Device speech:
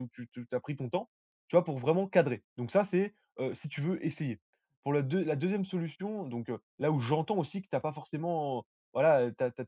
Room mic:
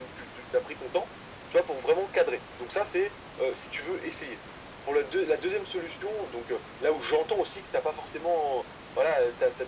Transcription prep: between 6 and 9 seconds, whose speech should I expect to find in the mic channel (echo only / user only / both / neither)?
echo only